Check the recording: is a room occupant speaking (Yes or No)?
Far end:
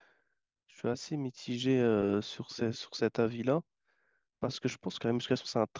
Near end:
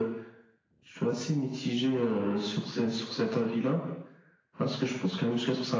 No